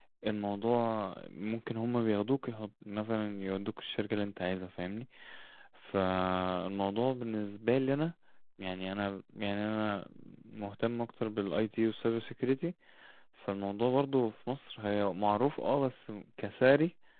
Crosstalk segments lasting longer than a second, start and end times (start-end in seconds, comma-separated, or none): none